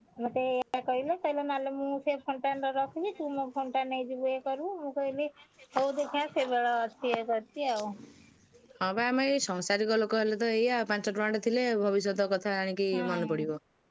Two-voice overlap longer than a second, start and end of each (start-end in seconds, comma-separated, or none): none